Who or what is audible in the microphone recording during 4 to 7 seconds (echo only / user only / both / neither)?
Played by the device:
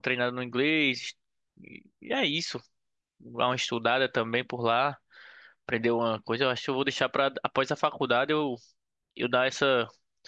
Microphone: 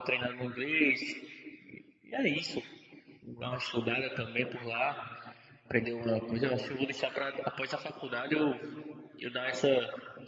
echo only